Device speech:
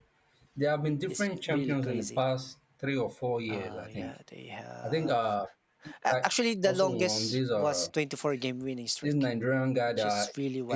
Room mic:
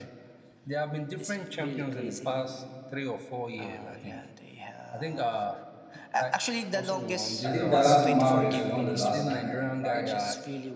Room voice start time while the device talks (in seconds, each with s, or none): 7.4 s